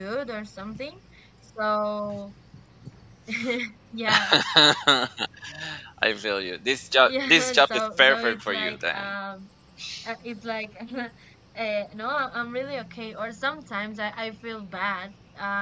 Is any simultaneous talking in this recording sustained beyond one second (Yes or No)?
Yes